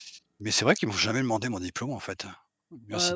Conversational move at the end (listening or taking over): taking over